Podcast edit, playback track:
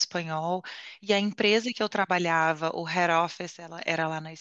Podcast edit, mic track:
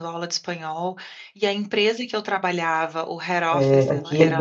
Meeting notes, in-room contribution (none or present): present